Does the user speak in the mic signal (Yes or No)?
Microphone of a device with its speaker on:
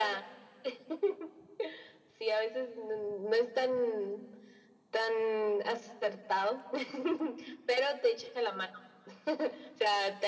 No